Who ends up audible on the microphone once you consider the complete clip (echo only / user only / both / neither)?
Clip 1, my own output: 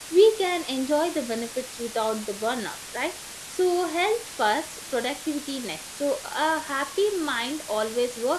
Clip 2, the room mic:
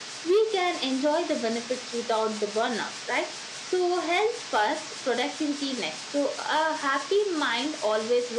echo only